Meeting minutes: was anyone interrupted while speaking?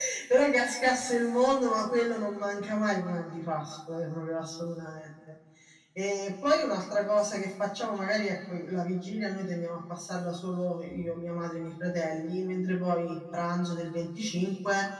No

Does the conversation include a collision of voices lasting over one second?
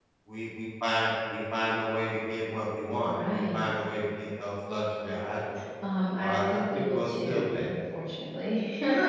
Yes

